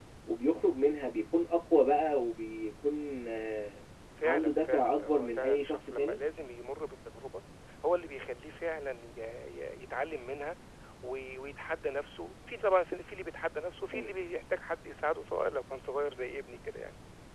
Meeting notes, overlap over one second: present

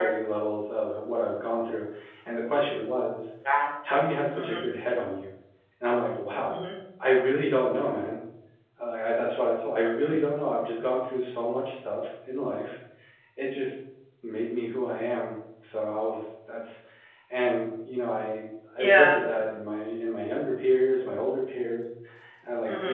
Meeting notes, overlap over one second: none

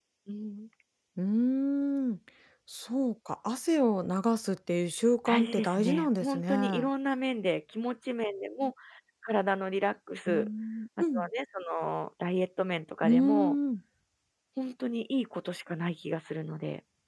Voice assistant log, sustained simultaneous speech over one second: present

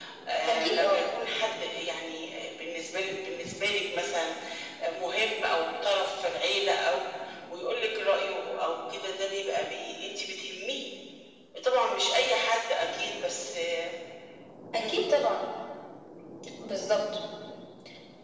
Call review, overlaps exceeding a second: none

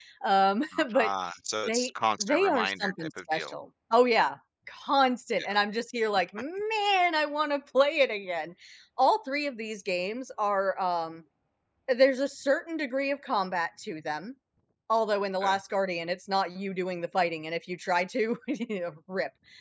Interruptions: present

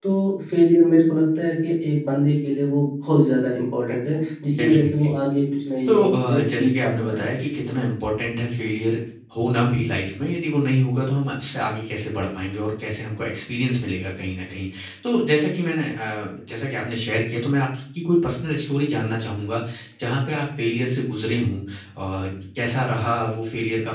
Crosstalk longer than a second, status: present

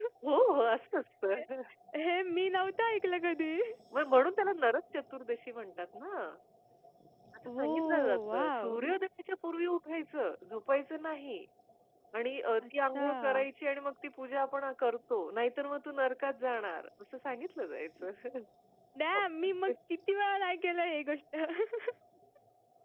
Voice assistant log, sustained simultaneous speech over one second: present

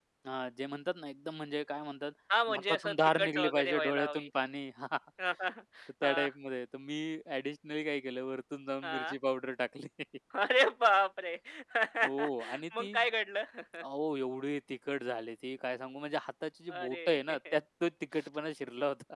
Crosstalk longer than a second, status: present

